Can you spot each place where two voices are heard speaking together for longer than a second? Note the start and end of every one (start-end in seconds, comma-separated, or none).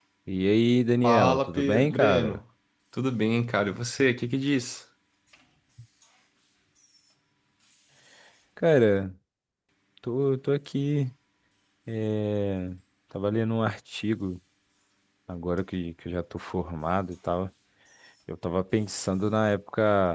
1.0-2.4